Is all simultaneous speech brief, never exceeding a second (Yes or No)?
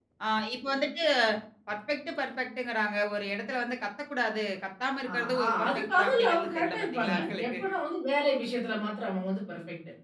No